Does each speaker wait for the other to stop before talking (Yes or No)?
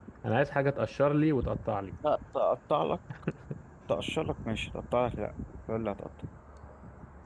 Yes